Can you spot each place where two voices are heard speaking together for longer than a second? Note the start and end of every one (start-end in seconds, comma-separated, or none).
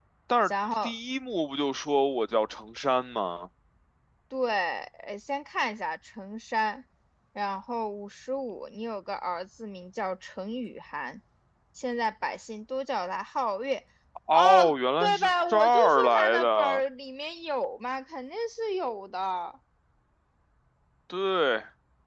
14.3-16.8